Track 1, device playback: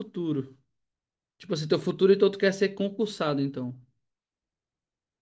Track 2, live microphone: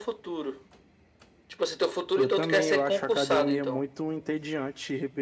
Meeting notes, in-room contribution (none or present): present